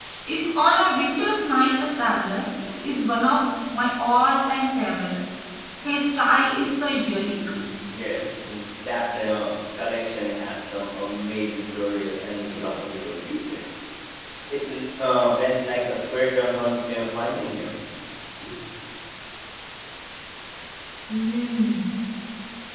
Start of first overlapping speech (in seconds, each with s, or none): none